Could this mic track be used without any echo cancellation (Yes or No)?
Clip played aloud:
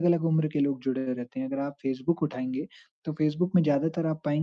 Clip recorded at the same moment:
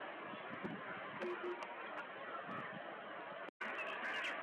Yes